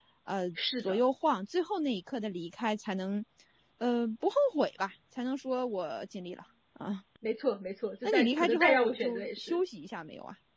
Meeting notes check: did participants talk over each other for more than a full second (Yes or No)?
Yes